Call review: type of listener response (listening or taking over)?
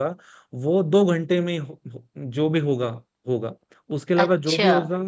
listening